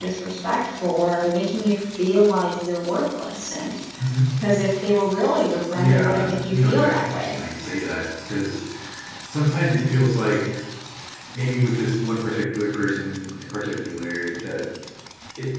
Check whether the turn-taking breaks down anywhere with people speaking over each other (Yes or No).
Yes